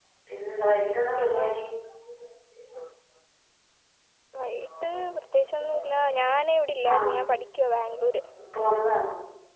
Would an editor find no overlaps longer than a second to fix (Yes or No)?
Yes